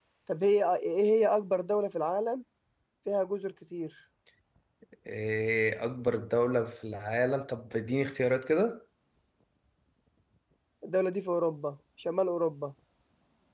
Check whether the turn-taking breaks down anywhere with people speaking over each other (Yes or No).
No